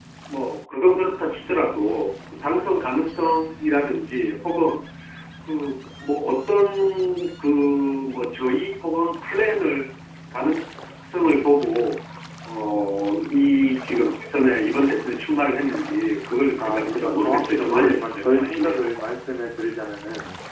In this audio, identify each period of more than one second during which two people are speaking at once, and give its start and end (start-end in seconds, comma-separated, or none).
16.6-18.8